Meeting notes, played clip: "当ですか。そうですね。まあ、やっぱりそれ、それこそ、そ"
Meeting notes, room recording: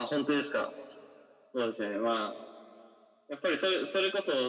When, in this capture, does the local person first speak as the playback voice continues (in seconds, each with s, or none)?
none